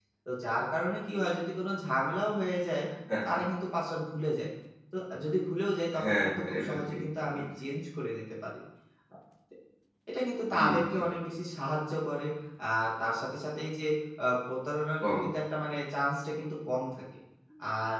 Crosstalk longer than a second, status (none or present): present